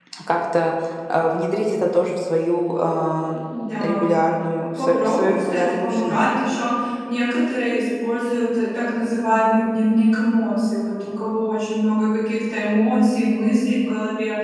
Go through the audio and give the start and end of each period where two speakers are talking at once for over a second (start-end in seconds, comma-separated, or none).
4.8-6.2